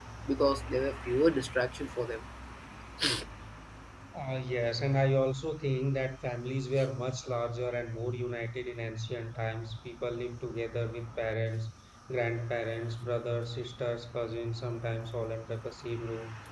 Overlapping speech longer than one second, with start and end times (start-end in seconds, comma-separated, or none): none